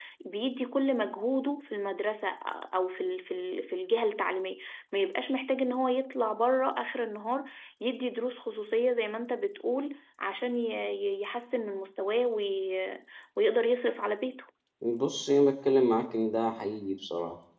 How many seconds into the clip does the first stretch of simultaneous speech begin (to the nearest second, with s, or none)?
none